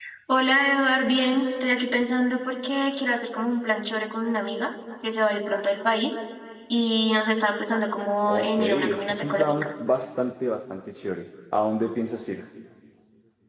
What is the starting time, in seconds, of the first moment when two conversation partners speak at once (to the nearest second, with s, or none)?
8 s